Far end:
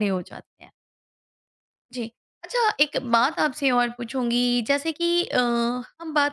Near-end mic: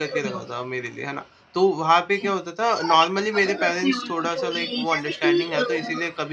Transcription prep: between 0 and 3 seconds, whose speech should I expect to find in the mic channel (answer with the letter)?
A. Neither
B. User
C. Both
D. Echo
C